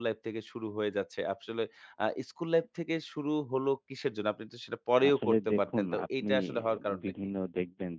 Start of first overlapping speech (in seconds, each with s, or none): 5.0 s